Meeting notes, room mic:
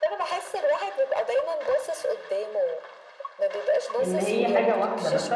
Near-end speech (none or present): present